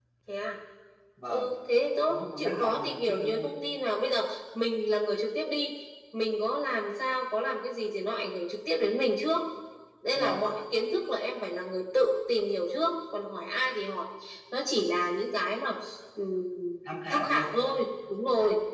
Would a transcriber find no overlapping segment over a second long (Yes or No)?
No